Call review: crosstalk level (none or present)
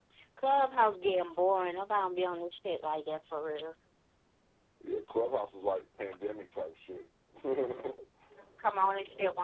none